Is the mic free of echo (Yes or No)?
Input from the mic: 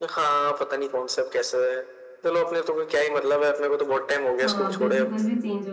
No